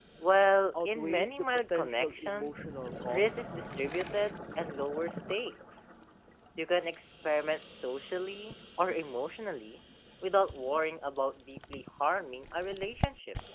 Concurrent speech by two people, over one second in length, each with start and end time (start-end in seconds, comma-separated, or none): 0.8-2.6